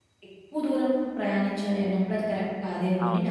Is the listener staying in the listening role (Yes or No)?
No